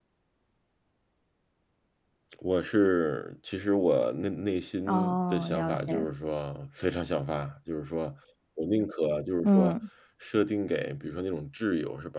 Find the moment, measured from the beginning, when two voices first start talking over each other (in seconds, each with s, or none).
4.9 s